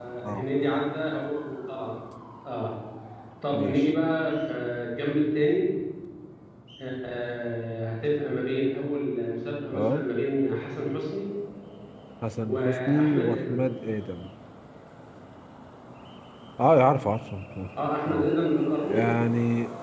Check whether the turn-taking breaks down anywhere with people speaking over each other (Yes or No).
Yes